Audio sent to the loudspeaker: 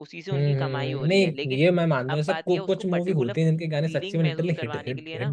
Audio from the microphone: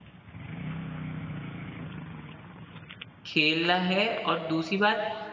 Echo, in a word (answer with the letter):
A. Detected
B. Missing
B